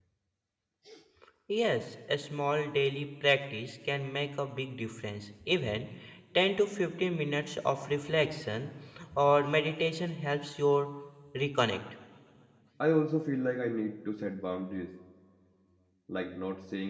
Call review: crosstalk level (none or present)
none